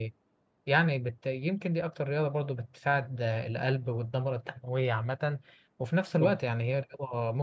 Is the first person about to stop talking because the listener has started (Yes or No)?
No